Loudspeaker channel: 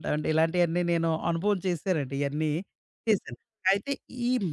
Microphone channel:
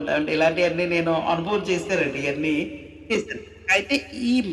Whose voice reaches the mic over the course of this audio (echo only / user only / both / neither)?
echo only